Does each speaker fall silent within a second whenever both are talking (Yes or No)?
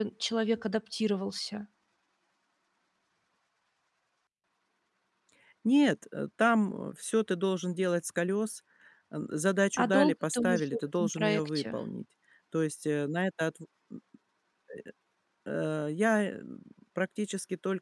No